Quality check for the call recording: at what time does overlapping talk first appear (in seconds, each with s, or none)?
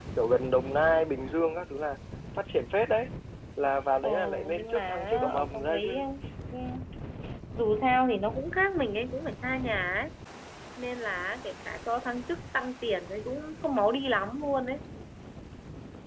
4.0 s